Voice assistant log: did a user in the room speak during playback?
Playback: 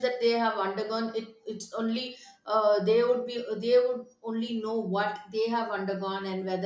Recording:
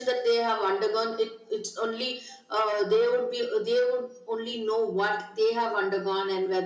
No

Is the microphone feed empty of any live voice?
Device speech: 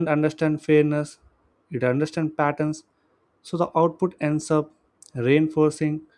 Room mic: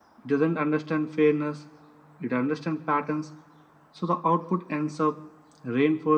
Yes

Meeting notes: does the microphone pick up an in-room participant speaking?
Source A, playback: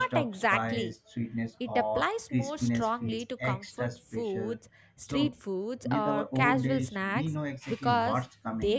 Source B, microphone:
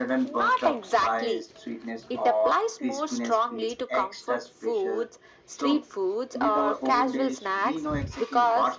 No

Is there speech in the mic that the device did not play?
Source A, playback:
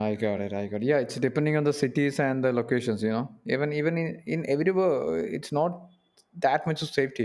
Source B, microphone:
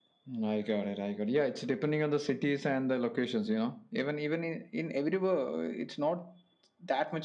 No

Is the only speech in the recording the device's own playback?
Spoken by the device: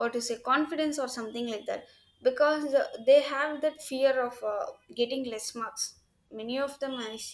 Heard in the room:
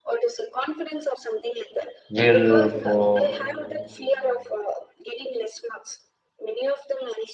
No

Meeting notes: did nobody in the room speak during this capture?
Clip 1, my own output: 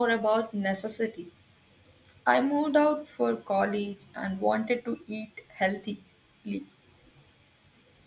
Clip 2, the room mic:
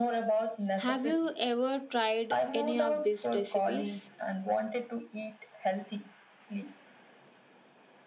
No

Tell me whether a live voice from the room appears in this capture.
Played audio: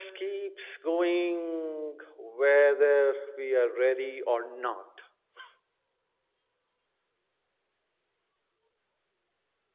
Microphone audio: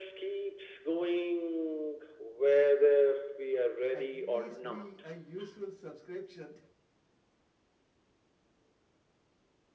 Yes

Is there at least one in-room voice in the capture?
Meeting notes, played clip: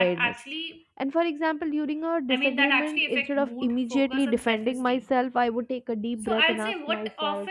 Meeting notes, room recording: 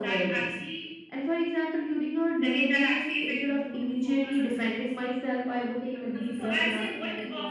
Yes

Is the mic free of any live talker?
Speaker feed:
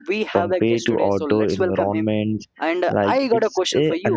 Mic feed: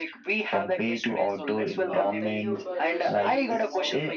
No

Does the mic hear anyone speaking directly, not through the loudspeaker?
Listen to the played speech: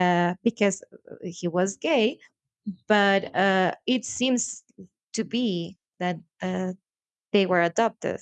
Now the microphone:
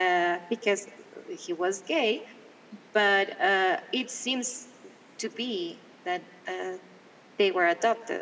No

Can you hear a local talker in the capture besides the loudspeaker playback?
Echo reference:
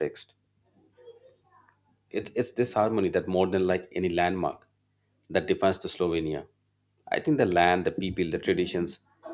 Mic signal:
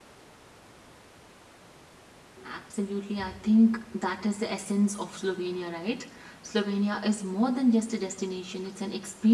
Yes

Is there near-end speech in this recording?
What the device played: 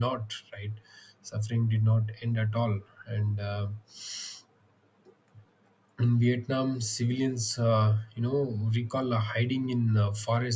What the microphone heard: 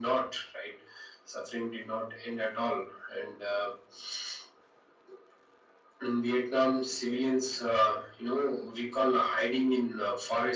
No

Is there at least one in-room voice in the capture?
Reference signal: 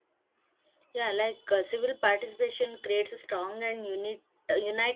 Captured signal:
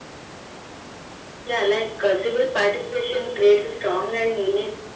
No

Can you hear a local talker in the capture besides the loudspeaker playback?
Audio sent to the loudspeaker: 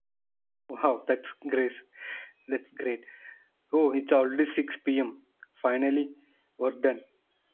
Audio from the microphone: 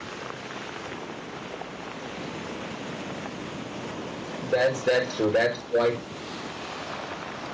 Yes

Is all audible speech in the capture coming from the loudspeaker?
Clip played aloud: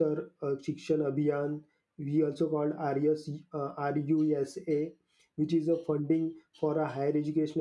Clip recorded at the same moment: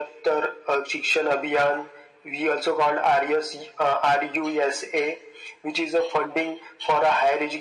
Yes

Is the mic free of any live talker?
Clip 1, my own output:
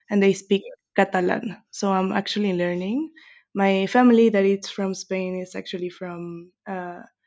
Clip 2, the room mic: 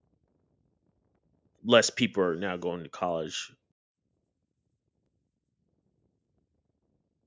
No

